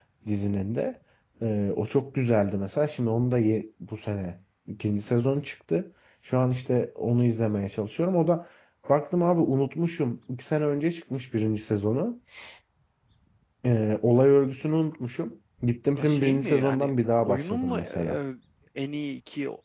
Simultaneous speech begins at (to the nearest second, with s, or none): 16 s